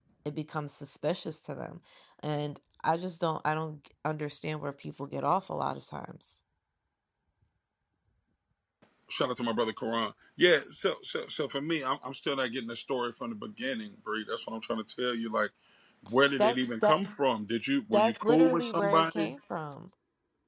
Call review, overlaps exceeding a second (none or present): present